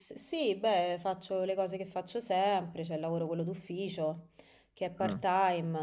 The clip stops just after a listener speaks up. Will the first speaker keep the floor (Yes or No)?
Yes